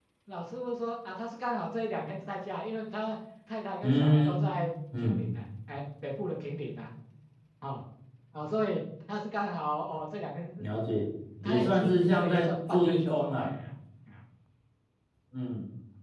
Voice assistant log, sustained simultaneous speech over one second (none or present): present